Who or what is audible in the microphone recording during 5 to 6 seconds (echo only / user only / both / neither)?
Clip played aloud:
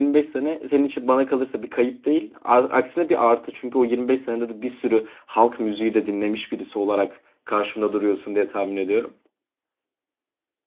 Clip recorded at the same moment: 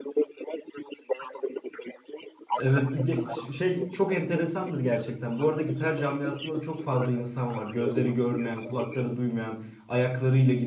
both